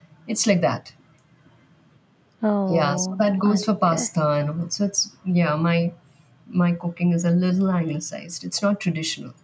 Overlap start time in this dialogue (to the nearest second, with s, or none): 3 s